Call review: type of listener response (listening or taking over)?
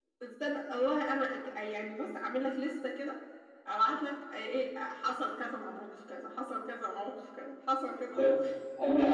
taking over